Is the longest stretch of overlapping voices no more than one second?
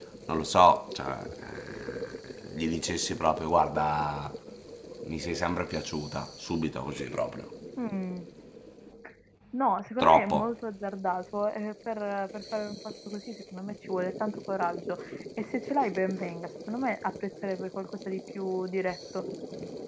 Yes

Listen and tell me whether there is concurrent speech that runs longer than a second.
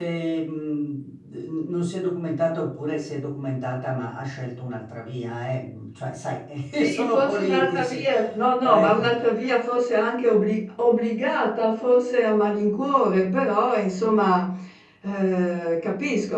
Yes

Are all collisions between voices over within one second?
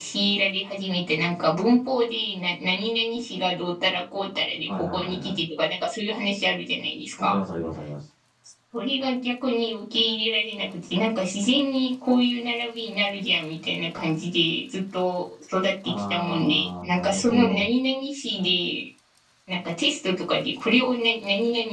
No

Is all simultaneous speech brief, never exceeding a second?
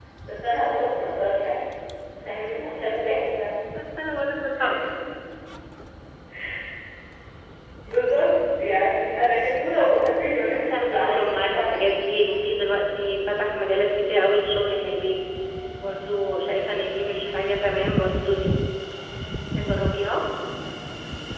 No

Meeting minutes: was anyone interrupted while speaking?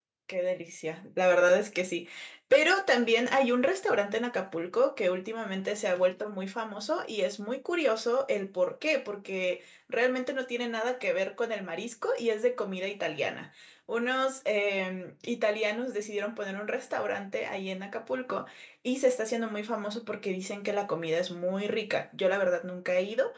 No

